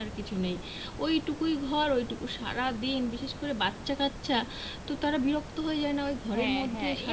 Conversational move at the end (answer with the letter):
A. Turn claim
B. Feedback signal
A